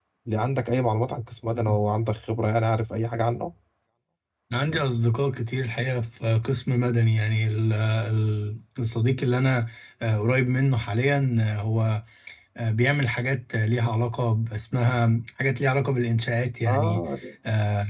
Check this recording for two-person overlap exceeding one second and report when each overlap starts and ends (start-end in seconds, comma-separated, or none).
none